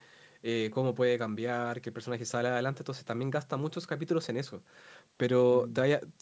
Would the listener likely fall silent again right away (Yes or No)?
Yes